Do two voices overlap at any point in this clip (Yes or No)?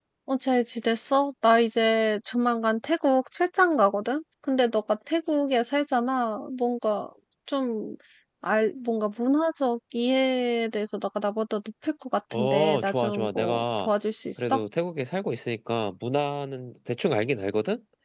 Yes